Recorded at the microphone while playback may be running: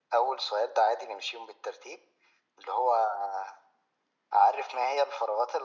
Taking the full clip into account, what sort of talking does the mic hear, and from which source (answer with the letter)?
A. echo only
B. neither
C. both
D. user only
A